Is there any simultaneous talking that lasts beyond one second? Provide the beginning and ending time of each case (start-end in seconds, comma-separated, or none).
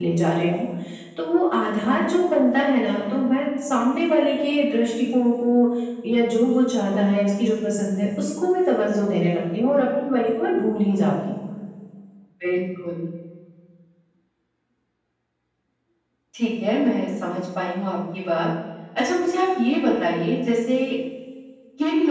none